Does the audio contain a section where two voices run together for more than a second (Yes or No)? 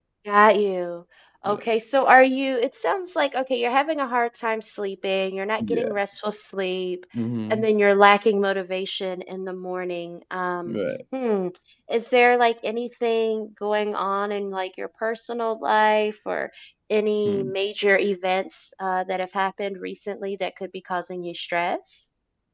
No